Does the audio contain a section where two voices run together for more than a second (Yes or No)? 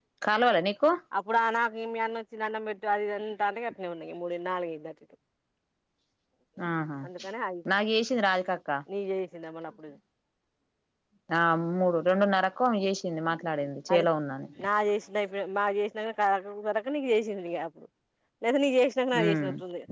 No